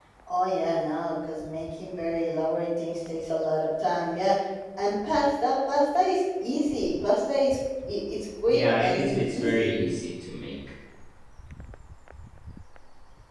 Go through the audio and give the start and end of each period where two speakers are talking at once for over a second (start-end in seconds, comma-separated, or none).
8.5-9.7